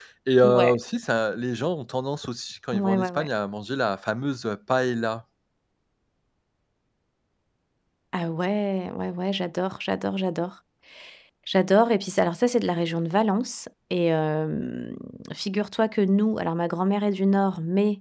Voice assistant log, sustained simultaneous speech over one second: none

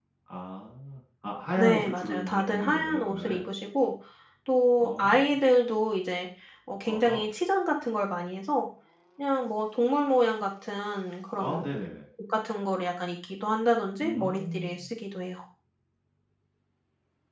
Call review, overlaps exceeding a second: present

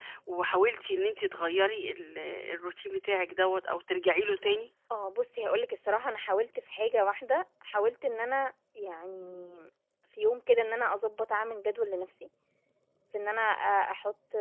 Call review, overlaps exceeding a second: none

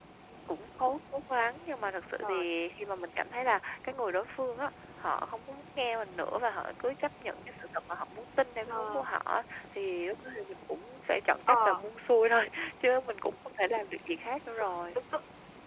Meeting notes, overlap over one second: none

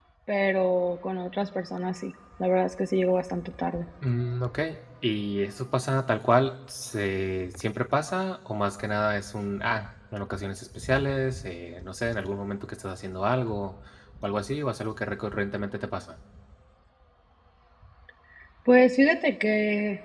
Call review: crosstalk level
none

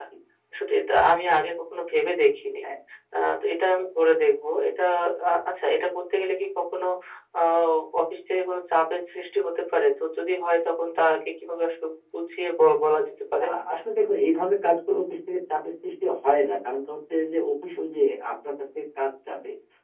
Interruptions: none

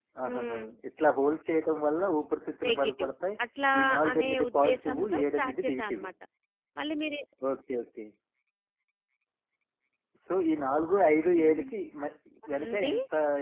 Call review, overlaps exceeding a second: present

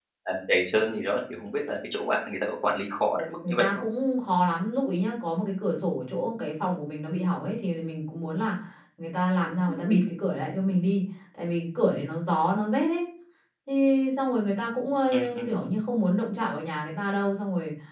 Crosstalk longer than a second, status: none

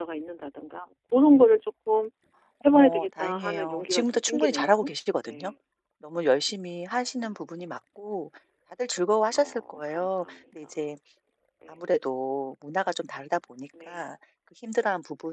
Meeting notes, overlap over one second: present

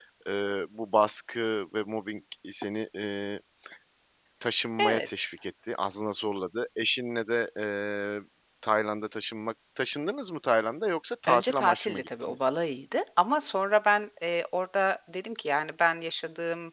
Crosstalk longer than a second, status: present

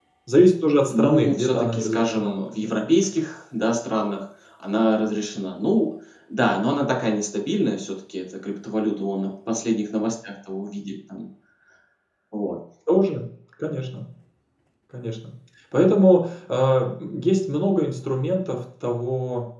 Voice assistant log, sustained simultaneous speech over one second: present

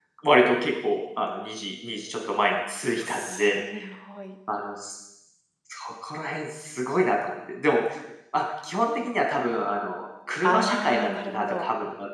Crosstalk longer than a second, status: present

